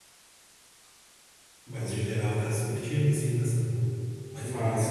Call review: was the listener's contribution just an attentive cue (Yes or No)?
No